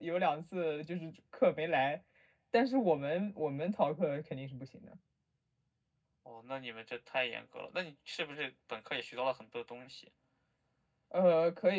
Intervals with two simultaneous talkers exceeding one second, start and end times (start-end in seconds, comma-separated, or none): none